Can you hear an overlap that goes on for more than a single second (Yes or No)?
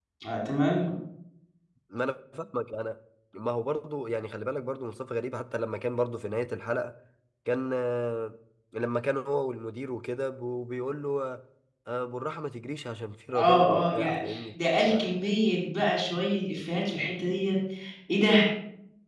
Yes